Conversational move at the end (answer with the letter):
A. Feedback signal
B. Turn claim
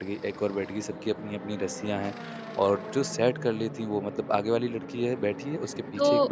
B